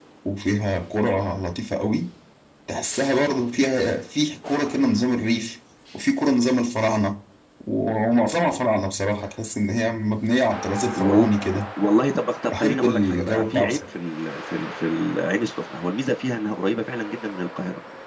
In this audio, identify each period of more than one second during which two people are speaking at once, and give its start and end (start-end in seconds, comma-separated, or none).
12.5-13.8